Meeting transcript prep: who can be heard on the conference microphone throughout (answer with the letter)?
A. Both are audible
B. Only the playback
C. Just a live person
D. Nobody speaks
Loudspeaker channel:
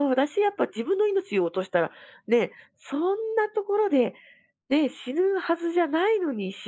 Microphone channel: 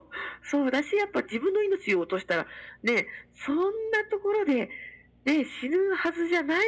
B